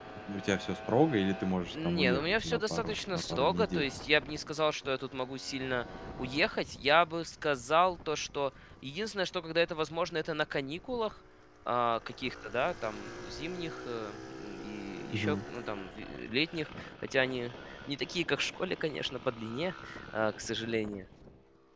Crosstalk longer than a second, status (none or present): present